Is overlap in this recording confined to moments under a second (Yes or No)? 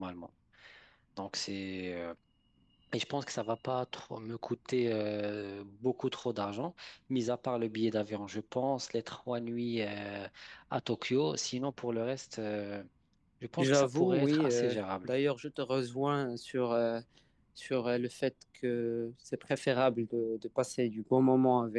No